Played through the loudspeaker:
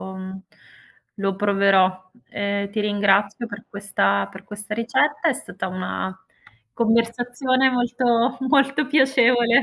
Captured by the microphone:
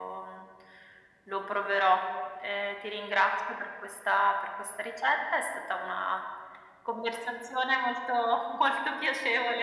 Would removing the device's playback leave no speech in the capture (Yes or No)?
Yes